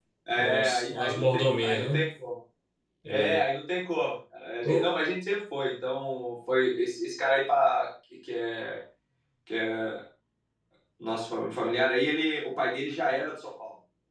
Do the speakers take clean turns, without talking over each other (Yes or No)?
No